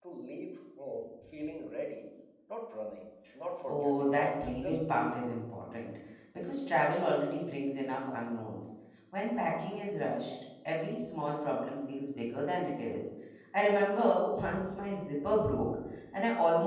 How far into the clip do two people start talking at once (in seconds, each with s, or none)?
3.6 s